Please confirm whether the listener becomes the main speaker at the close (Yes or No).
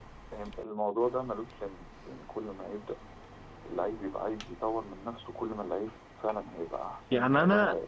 Yes